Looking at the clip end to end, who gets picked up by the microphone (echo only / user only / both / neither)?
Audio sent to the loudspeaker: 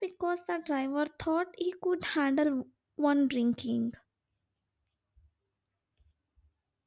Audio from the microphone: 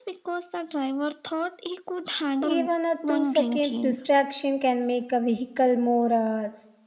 both